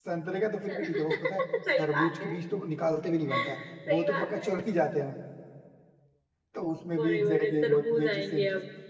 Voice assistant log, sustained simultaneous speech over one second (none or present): present